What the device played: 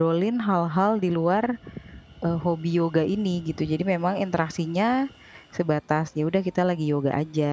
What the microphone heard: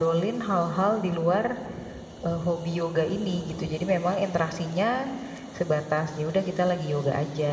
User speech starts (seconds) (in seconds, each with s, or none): none